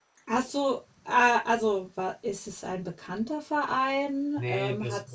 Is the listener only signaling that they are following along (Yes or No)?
No